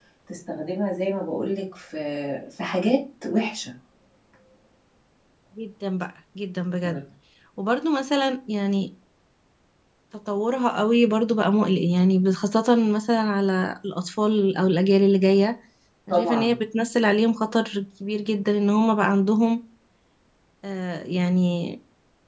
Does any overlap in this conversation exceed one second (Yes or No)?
No